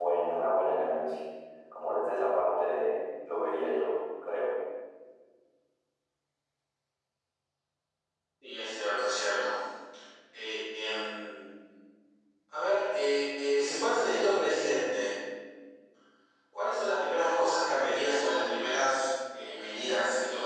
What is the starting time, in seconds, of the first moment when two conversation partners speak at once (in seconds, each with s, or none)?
none